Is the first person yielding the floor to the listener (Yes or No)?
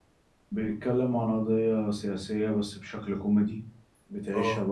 No